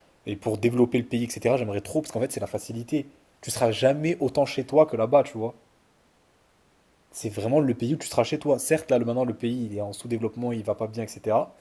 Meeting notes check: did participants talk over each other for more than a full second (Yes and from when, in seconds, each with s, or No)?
No